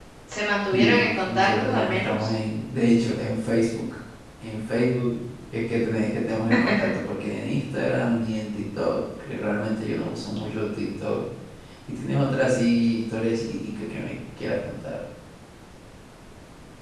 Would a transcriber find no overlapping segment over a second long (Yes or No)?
No